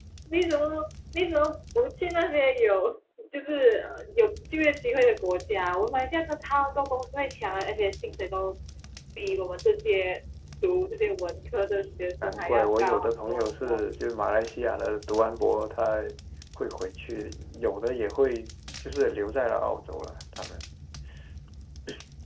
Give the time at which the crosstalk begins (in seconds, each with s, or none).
12.2 s